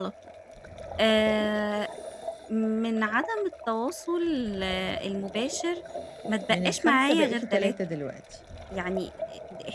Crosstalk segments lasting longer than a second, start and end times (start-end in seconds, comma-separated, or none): 6.5-7.7